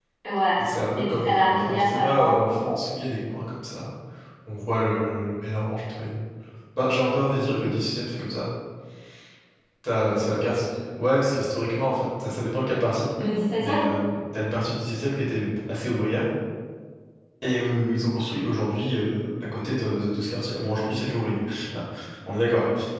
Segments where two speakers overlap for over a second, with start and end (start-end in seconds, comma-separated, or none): 1.1-2.4